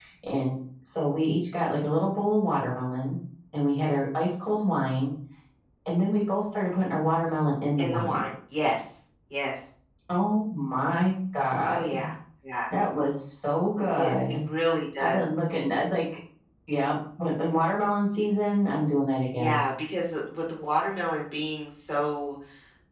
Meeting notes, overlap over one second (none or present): none